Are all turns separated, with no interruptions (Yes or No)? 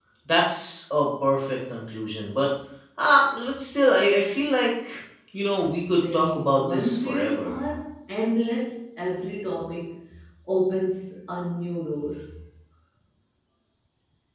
No